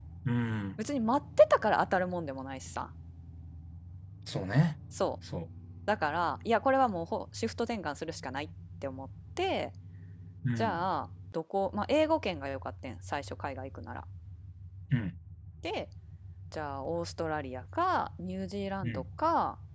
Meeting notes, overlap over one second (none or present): none